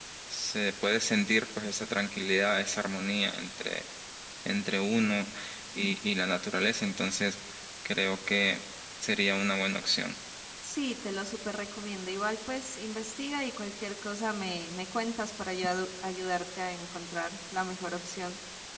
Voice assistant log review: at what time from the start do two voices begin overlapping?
none

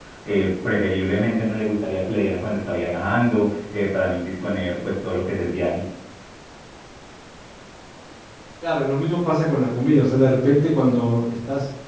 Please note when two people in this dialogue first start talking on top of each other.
none

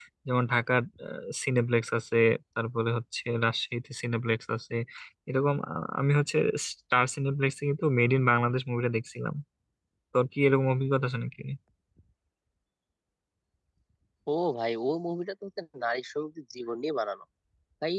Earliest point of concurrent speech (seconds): none

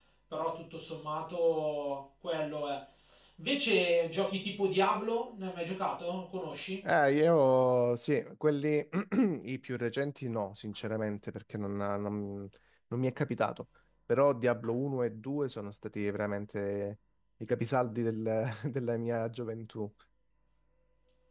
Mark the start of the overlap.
none

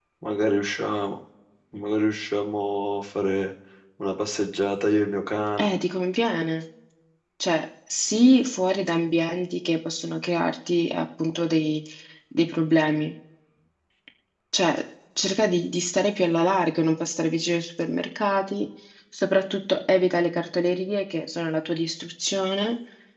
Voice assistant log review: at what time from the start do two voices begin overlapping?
none

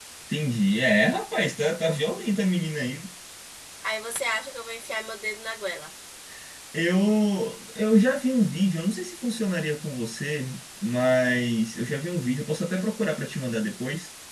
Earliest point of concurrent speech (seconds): none

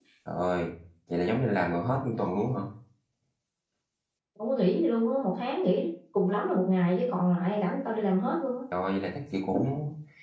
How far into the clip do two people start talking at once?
none

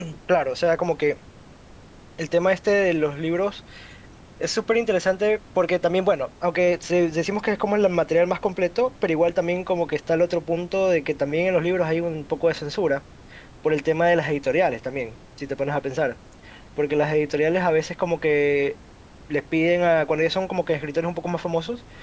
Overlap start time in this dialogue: none

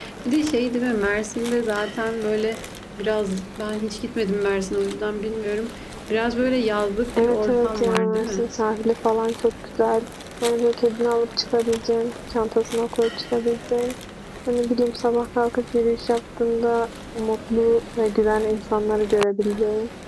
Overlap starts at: 7.2 s

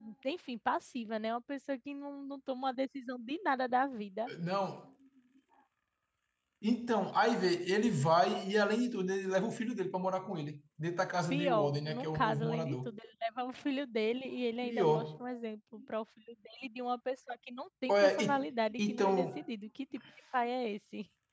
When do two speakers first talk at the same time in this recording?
11.3 s

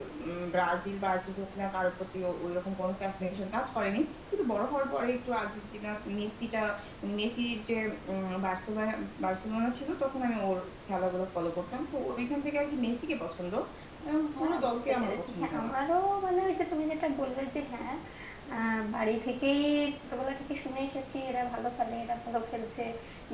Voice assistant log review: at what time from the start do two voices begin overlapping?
14.4 s

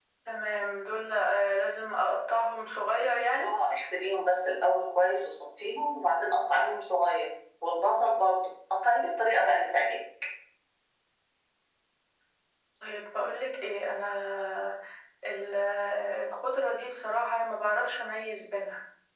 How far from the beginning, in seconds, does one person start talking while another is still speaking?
none

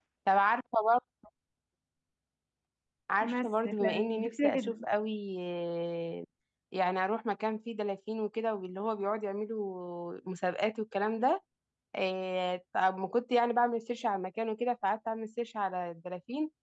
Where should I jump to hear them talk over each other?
3.2 s

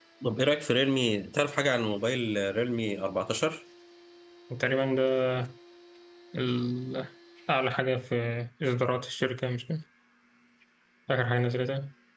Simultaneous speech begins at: none

